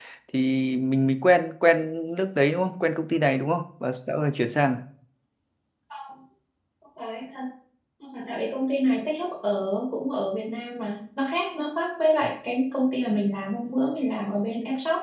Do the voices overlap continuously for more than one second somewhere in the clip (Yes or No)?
No